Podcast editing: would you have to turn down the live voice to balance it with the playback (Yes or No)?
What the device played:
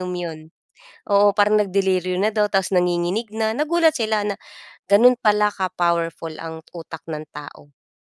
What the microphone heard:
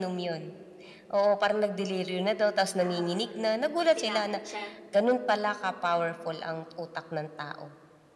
No